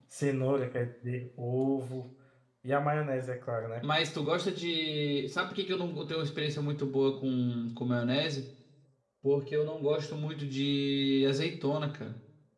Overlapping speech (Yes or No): No